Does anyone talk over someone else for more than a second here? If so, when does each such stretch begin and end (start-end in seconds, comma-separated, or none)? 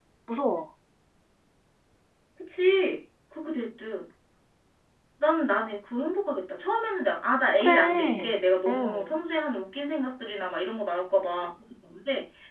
7.6-9.2